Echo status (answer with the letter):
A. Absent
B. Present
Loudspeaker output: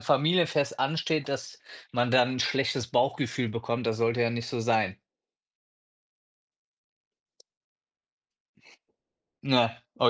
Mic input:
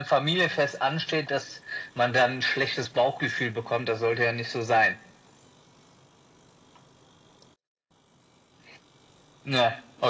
B